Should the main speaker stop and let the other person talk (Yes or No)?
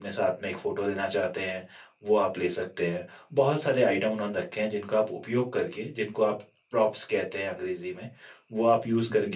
No